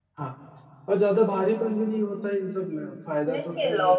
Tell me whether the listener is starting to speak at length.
Yes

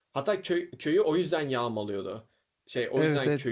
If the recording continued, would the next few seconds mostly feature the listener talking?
Yes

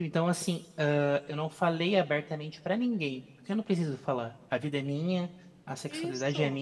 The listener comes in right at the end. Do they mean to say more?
No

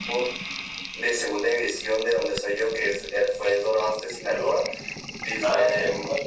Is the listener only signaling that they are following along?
No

